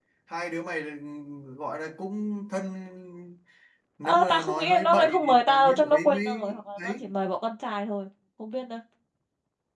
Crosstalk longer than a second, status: present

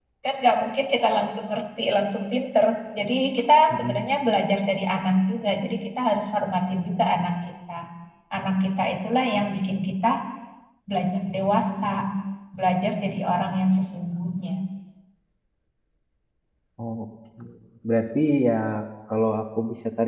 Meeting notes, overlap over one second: none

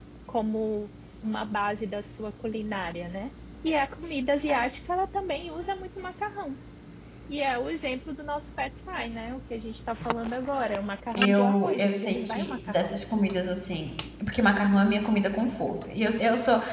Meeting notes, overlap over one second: present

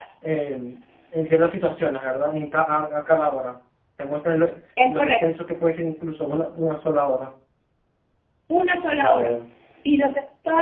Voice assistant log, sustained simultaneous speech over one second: none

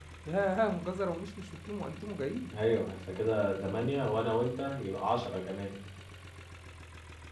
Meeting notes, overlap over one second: none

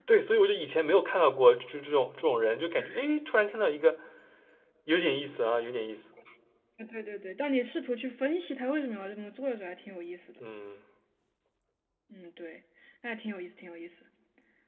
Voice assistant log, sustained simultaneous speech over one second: none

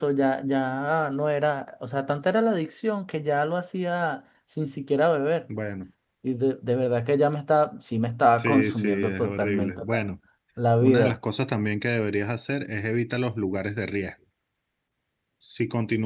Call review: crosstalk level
present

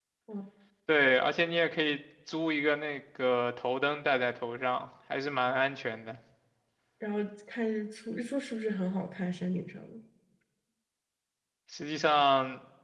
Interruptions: none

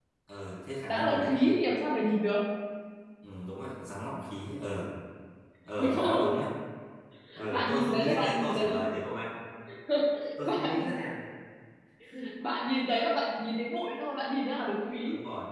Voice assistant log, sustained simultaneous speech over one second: present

